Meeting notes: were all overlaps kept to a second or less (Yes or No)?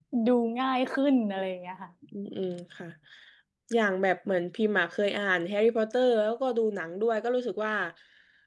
Yes